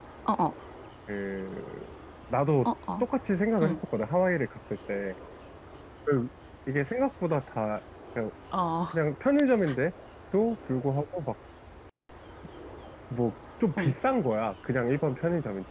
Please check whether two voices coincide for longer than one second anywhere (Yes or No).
No